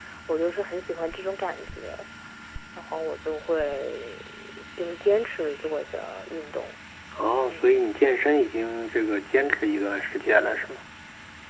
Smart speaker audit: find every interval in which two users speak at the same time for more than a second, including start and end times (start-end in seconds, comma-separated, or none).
none